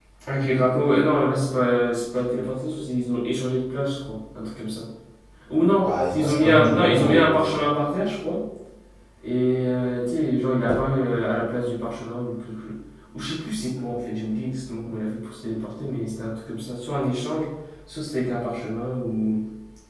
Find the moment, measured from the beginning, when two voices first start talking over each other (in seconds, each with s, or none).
5.8 s